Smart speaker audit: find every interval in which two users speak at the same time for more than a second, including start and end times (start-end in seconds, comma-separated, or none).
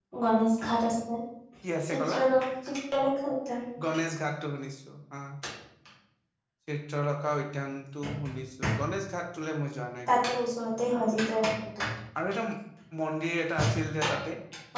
none